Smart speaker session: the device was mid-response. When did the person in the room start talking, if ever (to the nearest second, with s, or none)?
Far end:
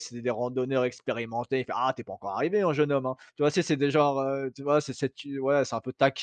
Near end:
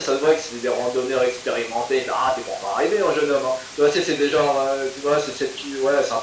none